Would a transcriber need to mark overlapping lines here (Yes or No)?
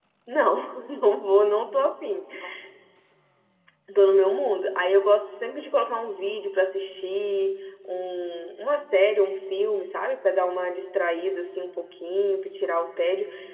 No